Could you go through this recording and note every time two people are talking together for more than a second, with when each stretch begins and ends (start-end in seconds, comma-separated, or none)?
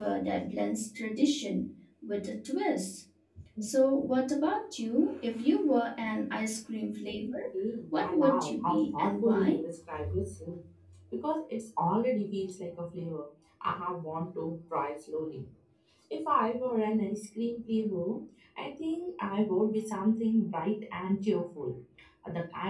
8.0-9.6